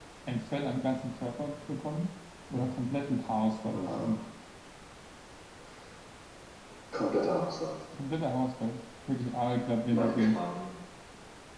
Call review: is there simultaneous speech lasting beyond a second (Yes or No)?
No